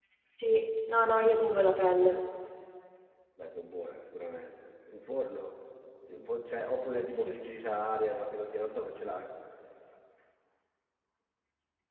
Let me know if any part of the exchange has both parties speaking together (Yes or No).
Yes